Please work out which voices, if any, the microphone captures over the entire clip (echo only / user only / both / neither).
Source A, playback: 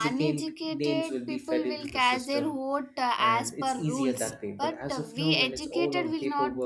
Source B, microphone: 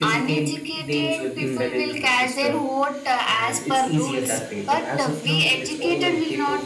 both